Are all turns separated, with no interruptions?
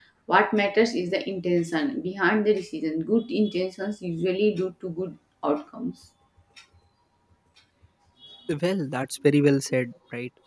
Yes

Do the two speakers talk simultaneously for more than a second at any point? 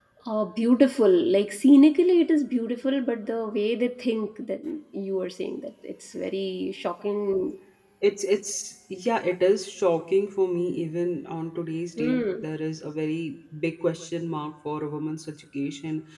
No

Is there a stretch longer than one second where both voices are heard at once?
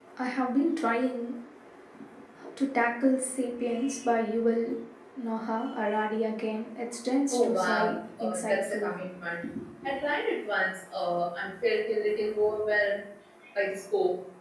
Yes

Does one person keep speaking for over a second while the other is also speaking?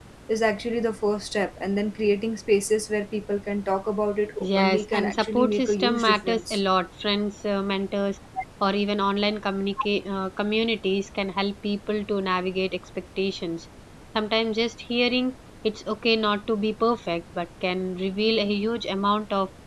Yes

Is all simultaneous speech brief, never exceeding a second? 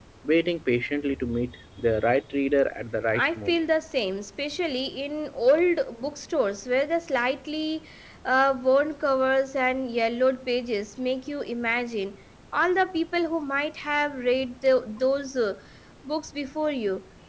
Yes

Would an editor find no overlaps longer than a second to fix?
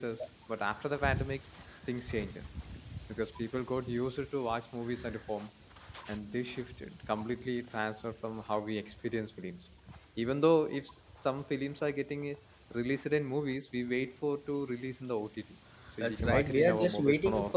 No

